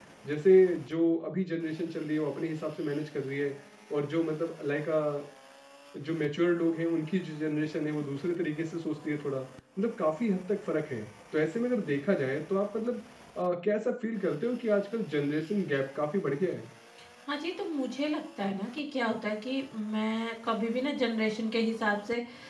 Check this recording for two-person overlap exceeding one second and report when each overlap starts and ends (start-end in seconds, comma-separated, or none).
none